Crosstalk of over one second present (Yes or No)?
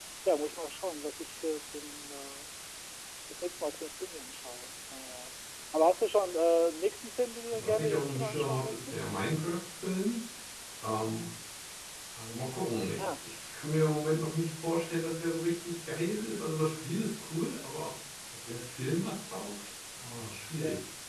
Yes